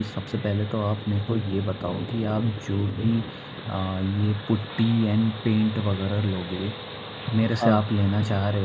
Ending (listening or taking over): listening